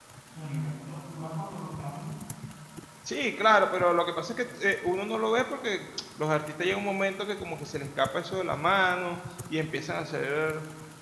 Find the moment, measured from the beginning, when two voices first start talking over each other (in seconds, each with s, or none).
none